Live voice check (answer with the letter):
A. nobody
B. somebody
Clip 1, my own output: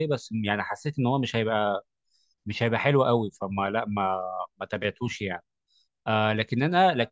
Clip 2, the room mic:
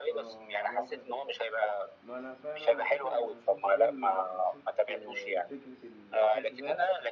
B